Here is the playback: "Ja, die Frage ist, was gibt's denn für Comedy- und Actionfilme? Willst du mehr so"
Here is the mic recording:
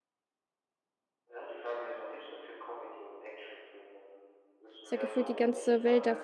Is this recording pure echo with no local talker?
No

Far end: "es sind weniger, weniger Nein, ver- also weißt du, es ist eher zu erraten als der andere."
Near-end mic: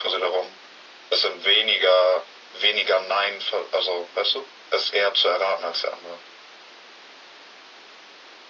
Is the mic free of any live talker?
Yes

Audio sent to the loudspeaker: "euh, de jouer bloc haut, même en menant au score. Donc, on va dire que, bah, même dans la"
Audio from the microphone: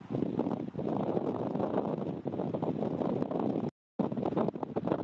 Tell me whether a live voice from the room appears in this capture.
No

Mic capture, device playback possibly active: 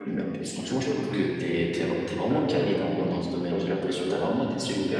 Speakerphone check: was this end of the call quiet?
No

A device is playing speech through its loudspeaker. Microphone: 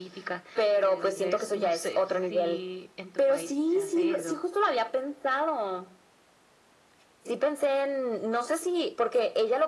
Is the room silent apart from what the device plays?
Yes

